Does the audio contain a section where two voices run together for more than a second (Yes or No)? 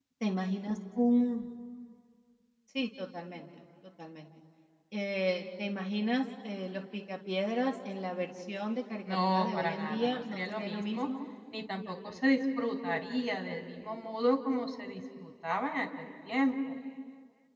Yes